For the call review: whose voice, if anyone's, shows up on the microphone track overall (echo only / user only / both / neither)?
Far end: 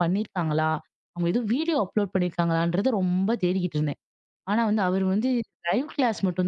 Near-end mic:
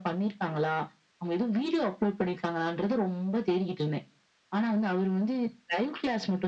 echo only